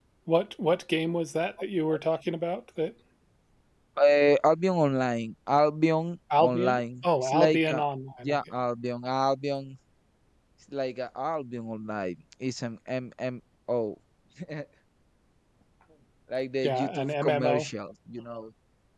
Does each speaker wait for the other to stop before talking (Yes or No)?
No